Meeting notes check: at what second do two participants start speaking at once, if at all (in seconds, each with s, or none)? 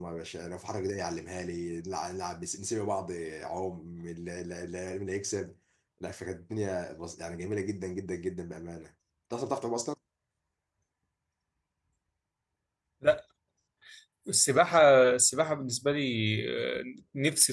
none